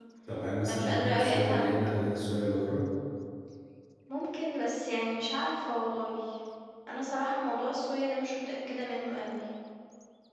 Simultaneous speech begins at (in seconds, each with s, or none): 0.7 s